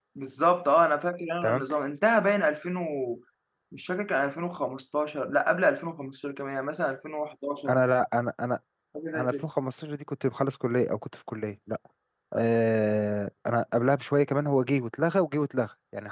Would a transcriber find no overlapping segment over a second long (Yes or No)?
Yes